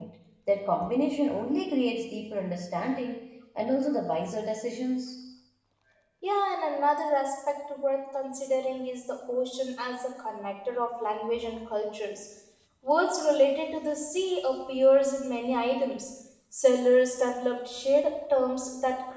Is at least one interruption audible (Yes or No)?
No